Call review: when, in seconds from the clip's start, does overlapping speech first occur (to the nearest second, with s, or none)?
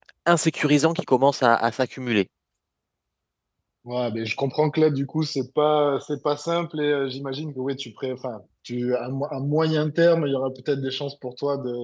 none